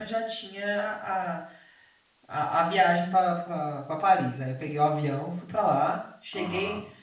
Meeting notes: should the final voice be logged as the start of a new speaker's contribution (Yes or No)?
No